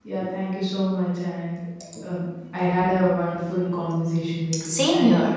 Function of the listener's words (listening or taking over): taking over